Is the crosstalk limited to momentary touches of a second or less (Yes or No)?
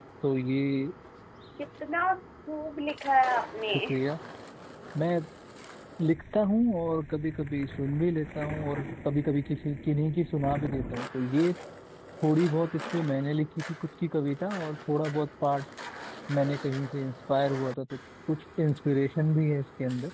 Yes